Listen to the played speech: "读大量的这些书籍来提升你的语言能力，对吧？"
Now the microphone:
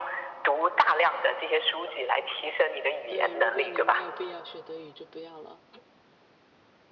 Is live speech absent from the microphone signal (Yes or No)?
No